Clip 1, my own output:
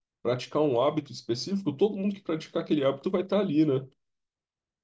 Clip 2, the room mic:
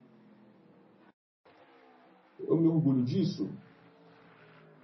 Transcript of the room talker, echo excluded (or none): Eu me orgulho disso?